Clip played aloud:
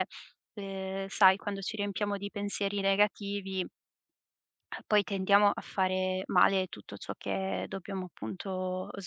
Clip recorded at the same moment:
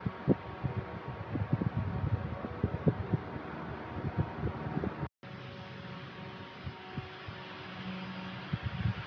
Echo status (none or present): none